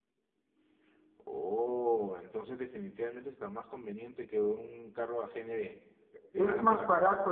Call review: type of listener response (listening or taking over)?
taking over